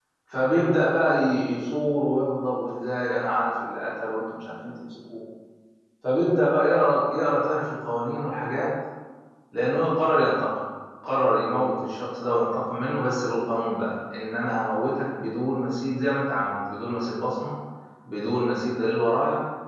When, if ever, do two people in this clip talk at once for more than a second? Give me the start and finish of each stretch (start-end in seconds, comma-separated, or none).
none